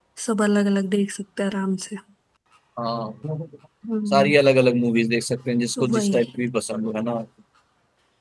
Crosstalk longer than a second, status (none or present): none